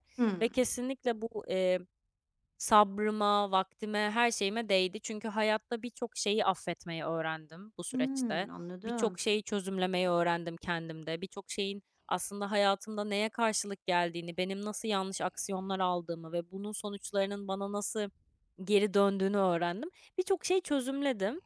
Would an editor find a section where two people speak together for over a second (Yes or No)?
No